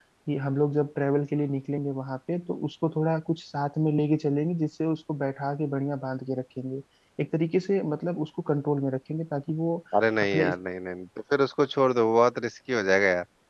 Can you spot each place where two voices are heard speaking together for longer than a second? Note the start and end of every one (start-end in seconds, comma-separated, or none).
none